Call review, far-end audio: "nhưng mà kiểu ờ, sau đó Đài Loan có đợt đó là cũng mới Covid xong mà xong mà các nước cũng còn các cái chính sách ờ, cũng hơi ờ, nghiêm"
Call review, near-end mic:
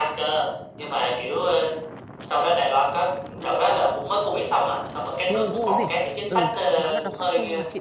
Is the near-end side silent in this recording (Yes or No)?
No